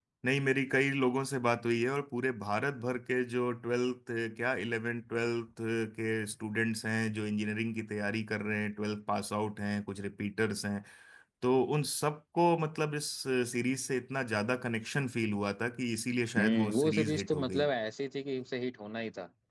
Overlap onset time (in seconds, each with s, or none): 16.4 s